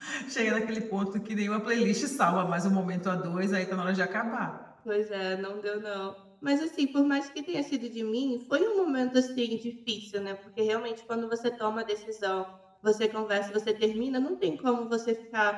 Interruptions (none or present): none